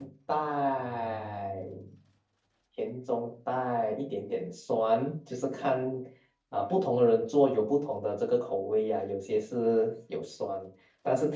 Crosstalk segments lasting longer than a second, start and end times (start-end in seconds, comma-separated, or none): none